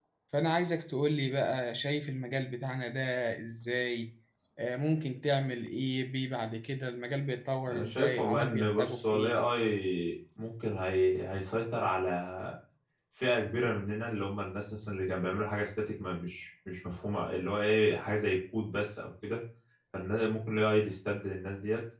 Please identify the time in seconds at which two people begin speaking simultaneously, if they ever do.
7.7 s

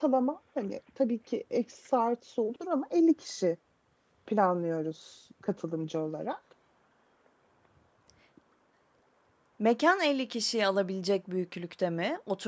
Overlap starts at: none

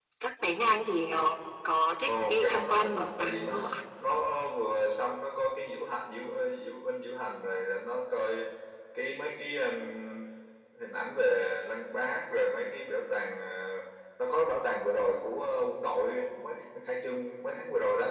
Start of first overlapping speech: 2.1 s

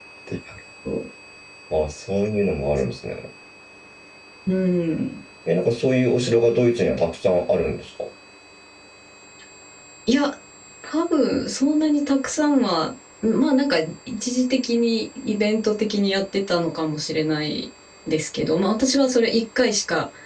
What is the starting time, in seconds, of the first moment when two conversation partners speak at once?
none

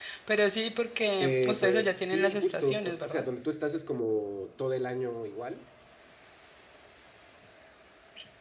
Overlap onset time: 1.2 s

